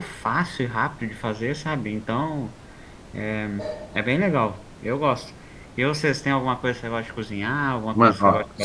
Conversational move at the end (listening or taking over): taking over